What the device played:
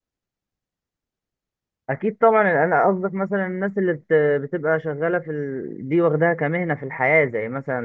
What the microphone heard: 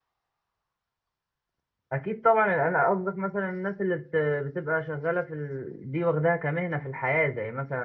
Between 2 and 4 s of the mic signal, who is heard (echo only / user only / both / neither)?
echo only